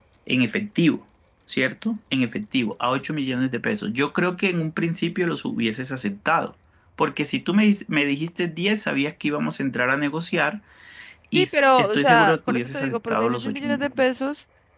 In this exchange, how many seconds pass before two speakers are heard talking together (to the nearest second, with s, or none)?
11 s